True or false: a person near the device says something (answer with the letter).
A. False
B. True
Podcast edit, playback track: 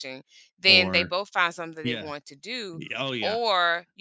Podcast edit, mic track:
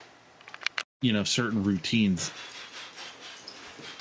B